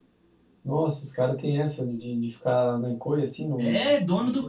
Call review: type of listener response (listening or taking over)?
taking over